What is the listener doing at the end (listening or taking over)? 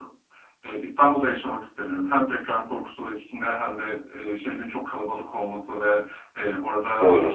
listening